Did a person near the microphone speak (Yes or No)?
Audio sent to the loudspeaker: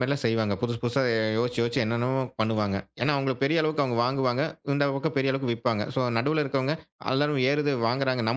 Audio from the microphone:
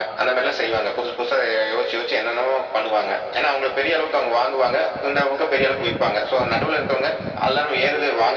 No